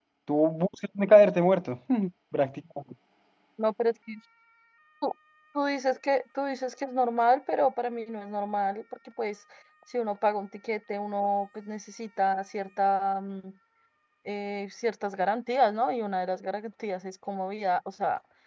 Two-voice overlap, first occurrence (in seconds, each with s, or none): none